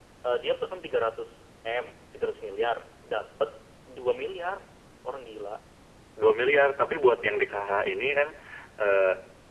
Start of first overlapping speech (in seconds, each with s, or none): none